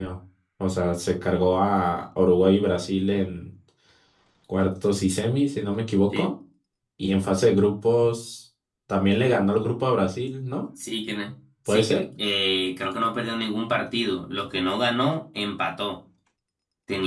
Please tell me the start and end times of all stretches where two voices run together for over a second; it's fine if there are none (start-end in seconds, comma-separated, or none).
none